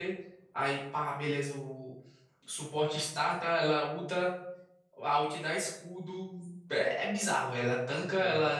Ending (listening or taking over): listening